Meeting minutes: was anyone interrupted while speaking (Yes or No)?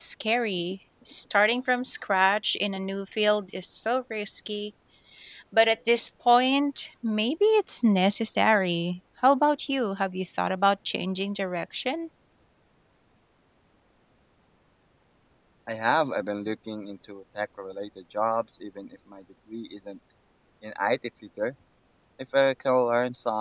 No